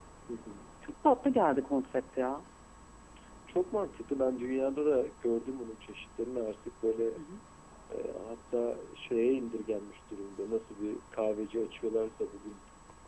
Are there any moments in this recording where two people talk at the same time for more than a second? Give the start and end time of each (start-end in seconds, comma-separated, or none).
none